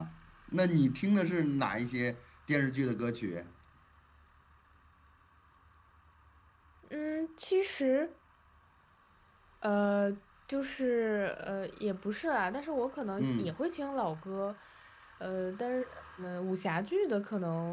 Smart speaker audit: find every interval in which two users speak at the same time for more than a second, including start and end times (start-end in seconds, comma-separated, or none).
none